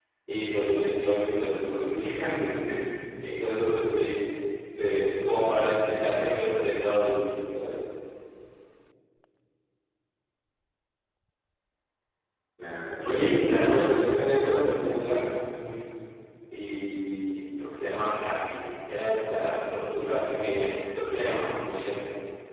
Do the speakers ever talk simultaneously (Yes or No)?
Yes